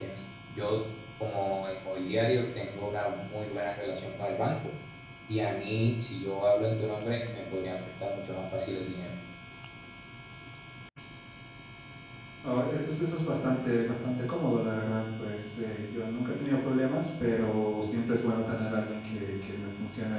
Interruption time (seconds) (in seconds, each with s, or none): none